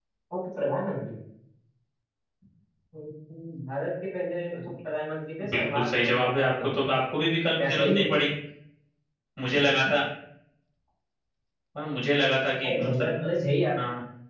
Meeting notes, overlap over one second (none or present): present